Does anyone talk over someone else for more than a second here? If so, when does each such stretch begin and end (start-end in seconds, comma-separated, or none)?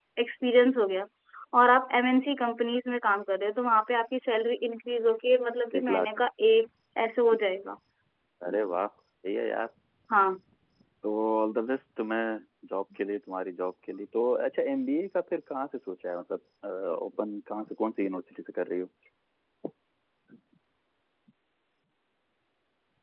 none